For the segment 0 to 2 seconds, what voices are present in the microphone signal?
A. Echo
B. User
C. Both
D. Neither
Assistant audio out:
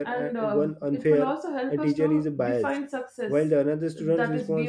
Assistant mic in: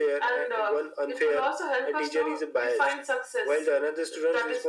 A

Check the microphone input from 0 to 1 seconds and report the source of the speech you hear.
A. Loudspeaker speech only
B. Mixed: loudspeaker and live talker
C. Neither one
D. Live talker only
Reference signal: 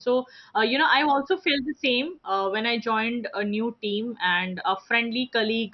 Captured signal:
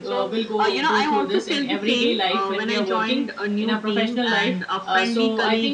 B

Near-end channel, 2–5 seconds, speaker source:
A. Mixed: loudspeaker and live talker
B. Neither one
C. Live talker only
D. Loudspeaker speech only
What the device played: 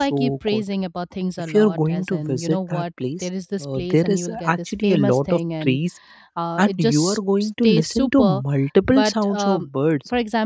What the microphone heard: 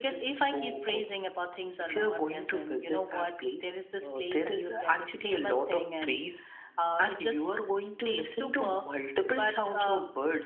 D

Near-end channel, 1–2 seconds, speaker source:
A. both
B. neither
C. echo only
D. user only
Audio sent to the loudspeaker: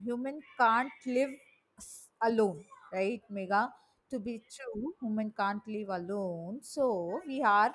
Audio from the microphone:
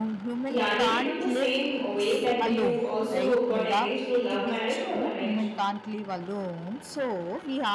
A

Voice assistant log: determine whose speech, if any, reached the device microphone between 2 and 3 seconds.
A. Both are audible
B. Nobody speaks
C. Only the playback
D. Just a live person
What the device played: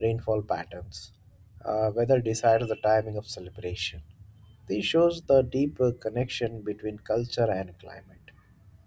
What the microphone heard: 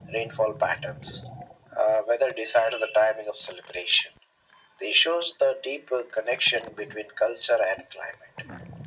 C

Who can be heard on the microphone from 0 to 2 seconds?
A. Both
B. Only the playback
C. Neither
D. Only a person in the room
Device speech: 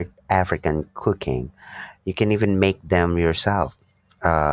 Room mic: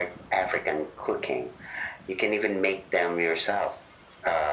B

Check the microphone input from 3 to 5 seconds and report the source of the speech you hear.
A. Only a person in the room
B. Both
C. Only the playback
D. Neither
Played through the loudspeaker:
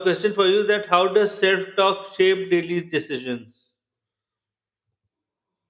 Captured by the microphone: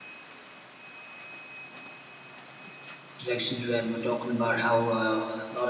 A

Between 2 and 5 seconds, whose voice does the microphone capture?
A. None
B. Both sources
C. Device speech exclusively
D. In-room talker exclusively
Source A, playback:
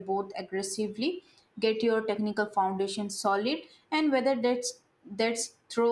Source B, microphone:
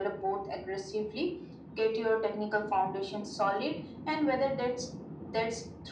C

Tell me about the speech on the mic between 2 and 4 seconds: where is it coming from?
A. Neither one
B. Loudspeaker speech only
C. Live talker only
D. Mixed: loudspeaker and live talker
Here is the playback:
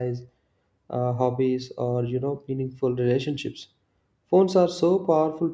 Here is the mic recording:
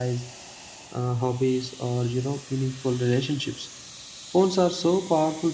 B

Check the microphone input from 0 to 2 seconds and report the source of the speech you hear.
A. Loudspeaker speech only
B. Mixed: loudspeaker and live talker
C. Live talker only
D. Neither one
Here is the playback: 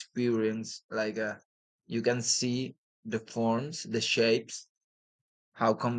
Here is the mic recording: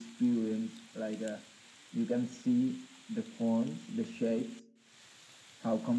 A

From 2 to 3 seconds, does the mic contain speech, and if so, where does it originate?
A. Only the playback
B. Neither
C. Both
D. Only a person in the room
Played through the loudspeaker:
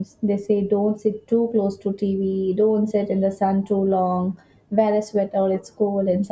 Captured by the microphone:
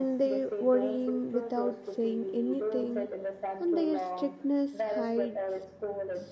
C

